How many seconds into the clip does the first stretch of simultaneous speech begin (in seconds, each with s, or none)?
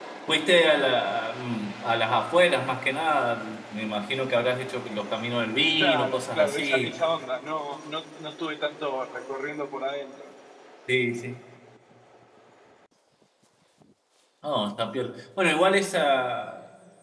5.8 s